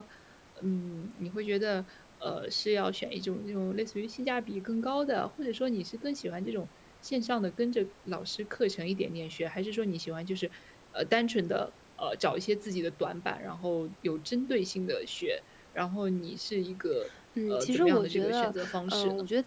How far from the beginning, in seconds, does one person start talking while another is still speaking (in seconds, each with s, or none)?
17.4 s